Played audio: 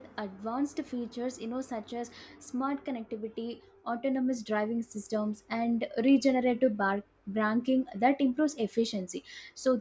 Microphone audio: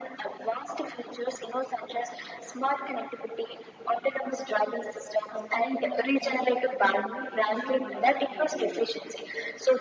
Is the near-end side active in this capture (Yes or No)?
Yes